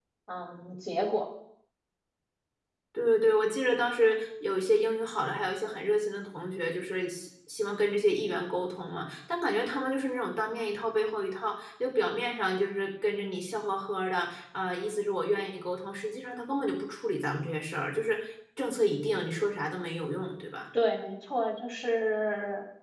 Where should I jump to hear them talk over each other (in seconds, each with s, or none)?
none